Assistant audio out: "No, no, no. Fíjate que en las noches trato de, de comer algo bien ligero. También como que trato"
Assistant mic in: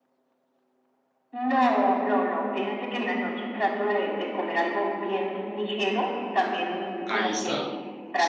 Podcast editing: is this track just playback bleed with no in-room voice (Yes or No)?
No